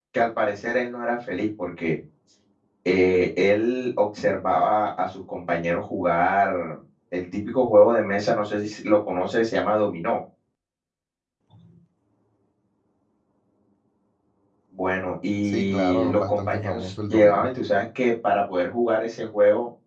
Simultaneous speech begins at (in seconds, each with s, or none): 15.4 s